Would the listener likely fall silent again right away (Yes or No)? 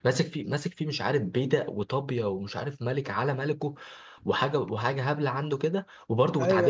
Yes